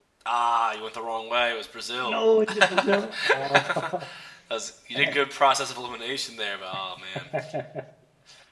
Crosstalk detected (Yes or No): Yes